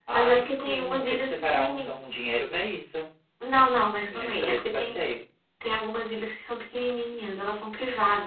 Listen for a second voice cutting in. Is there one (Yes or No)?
Yes